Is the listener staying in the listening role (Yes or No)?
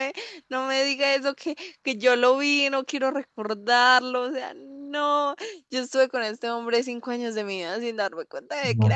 No